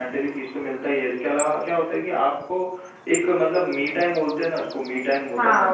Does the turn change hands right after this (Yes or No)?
Yes